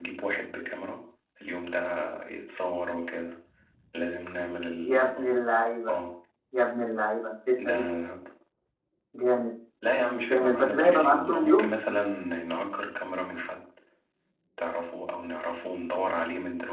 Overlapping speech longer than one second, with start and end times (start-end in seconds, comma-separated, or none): 10.3-11.7